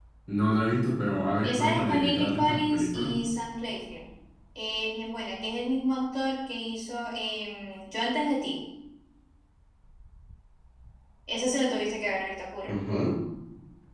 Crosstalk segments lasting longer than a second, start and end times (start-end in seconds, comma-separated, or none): 1.4-3.1